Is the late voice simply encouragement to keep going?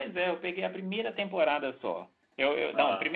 Yes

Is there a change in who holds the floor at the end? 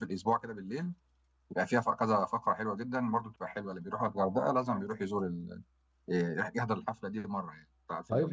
Yes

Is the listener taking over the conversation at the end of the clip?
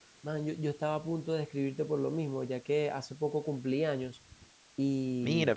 No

